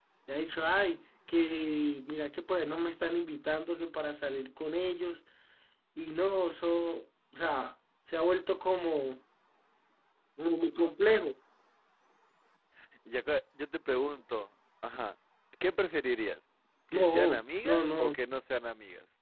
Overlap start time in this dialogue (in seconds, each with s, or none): 16.9 s